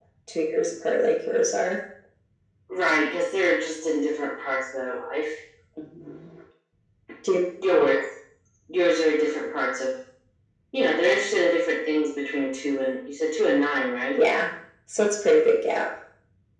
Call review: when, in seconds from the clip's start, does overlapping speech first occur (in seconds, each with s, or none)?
none